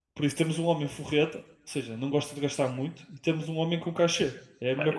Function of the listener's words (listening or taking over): taking over